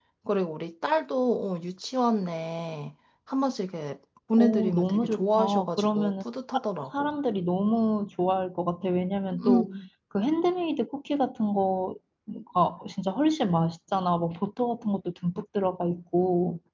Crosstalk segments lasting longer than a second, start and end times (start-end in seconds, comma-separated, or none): 4.4-6.1